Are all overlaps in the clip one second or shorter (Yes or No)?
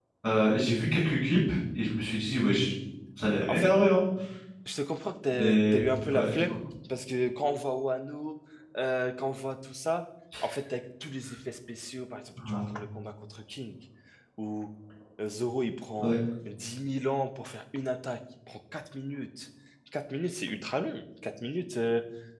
No